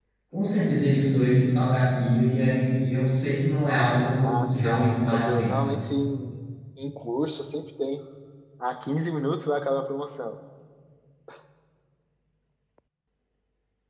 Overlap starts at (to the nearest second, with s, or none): 4 s